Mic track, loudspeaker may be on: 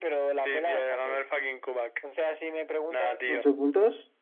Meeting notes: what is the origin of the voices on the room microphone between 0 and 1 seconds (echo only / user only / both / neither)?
echo only